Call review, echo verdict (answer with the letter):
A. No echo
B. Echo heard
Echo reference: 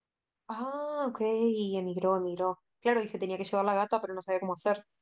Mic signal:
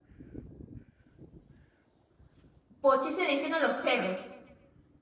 A